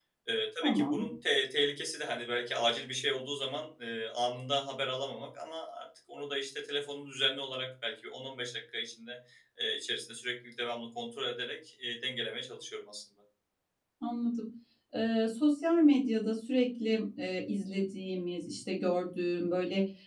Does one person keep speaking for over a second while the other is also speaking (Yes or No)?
No